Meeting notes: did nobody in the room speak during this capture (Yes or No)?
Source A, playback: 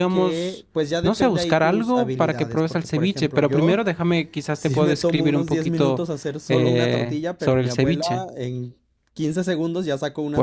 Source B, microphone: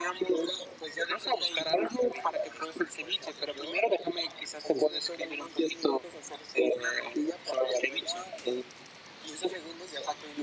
Yes